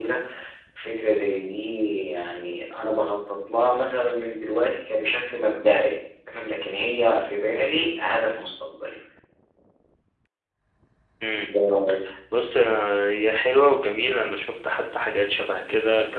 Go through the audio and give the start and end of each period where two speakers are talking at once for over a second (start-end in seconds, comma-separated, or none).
none